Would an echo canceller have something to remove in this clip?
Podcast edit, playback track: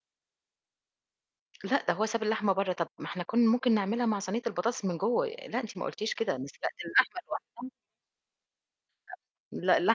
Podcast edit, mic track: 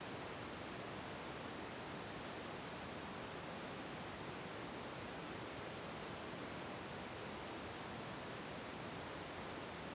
No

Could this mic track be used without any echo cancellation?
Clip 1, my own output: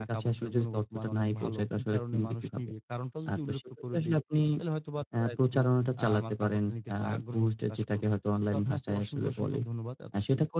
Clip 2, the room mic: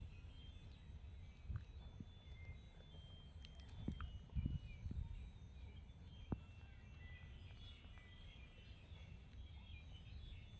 Yes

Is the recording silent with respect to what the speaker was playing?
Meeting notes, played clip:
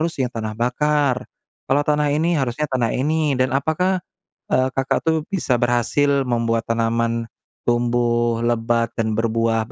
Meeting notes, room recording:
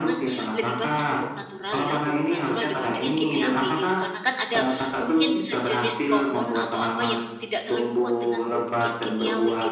No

